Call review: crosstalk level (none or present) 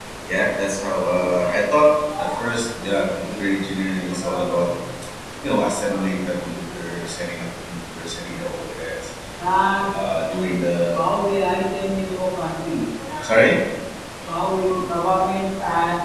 none